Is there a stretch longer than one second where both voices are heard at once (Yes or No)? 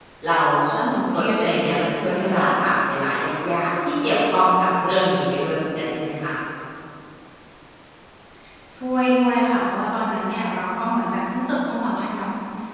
No